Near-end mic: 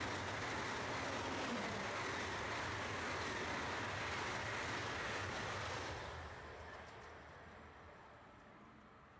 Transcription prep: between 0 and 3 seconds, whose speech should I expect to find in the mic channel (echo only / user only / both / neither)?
neither